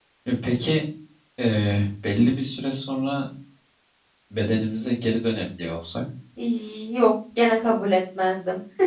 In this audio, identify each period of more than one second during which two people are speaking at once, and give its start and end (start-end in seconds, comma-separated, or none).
none